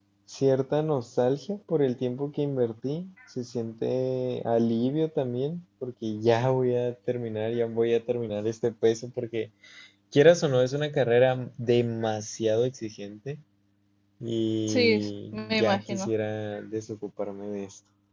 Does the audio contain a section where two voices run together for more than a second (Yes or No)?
Yes